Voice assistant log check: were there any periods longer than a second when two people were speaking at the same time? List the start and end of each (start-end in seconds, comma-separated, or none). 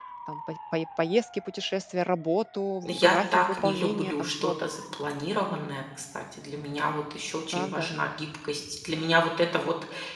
2.8-4.7